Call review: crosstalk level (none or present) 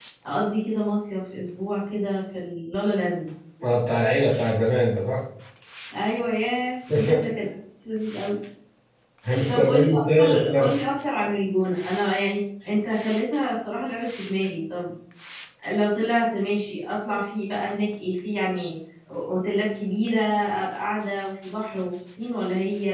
present